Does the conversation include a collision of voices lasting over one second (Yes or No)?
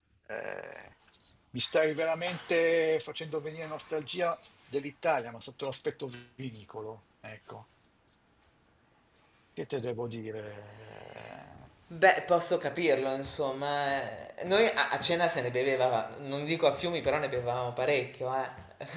No